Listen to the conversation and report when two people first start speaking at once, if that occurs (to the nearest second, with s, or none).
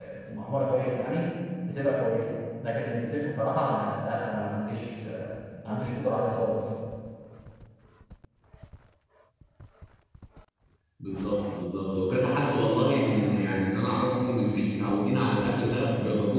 none